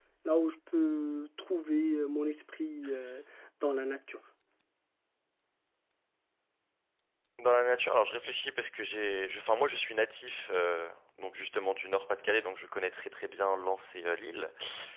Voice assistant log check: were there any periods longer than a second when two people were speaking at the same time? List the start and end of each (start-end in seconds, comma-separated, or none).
none